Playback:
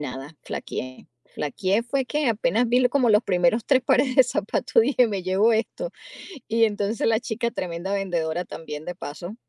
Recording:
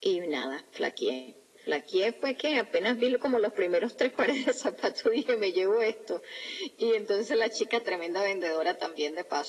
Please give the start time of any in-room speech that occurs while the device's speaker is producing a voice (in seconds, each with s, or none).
none